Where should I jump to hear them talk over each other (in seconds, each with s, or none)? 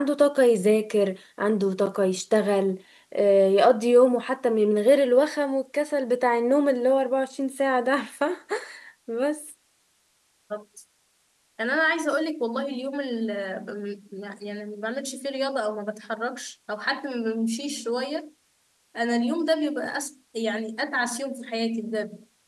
none